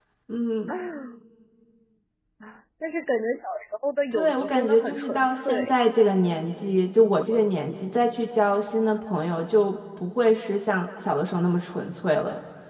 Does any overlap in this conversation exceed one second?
Yes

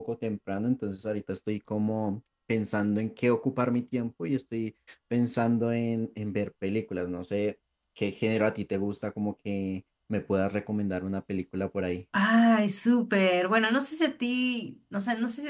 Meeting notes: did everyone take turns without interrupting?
Yes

